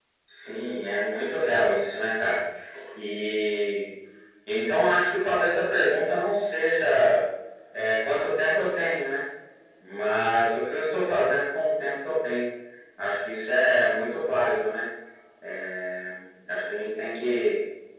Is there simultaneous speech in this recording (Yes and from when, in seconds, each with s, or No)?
No